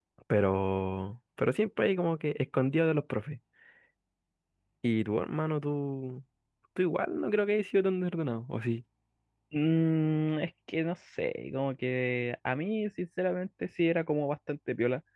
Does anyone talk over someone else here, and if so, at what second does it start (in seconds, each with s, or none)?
none